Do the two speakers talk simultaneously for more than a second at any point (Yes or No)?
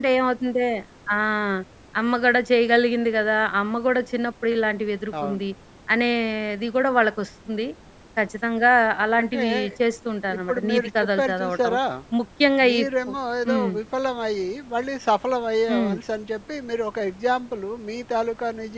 Yes